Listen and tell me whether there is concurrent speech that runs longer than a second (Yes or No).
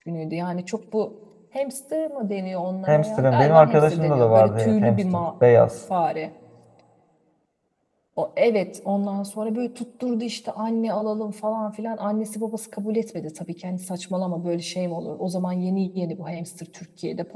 Yes